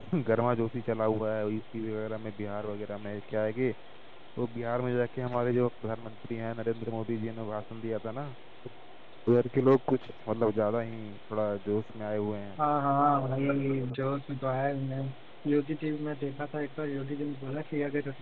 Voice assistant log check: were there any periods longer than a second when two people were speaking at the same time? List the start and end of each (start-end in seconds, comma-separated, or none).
none